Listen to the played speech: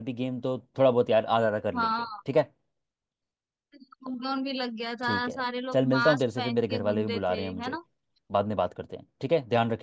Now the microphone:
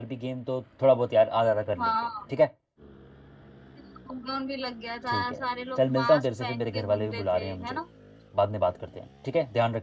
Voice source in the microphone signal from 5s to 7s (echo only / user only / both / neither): echo only